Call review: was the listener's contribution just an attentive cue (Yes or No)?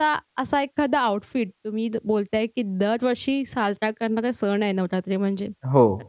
Yes